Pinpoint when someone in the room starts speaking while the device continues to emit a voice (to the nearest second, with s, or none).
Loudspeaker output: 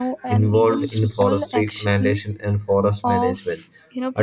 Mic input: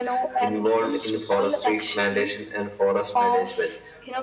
none